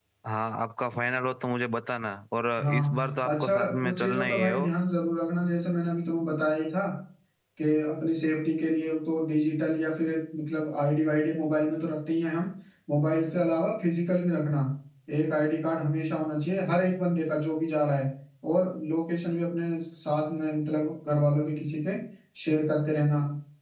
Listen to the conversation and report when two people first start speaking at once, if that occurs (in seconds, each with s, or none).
2.5 s